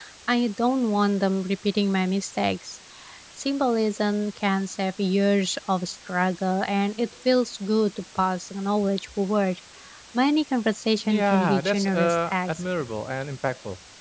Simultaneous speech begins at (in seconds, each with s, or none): 11.1 s